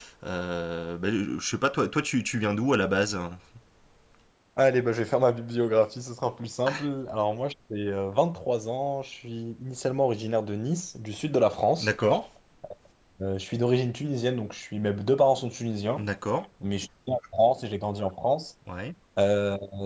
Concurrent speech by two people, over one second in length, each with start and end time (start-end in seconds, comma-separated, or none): none